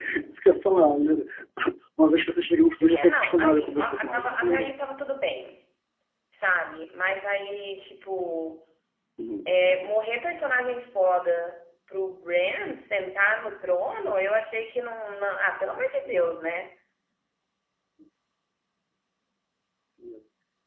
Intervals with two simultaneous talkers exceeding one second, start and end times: 2.9-4.7

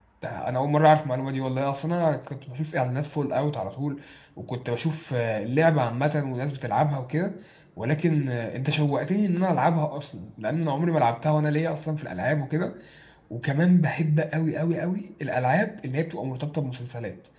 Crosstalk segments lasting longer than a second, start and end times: none

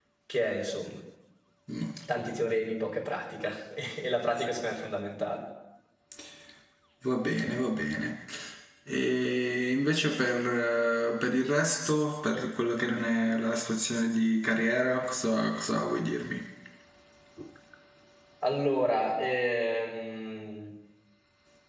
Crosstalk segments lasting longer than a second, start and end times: none

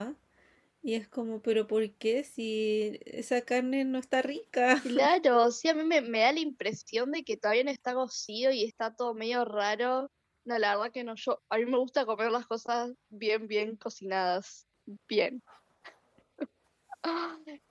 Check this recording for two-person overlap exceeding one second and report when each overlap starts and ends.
none

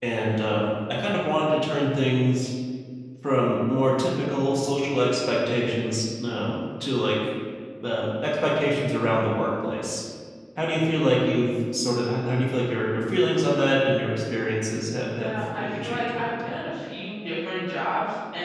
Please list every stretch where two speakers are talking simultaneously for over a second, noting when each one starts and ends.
15.1-16.7

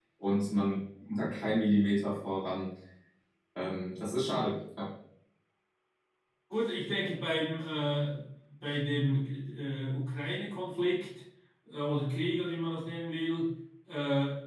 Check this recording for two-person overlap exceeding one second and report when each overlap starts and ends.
none

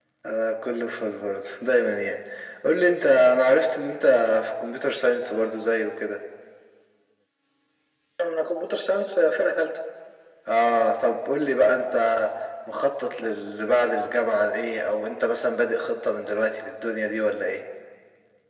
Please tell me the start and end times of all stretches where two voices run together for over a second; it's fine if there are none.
none

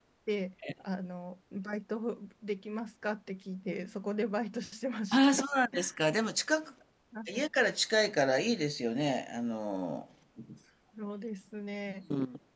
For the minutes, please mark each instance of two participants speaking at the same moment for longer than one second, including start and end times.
none

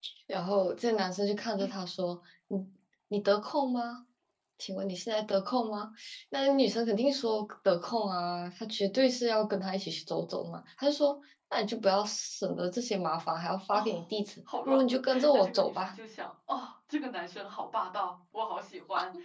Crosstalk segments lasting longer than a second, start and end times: 14.6-15.9

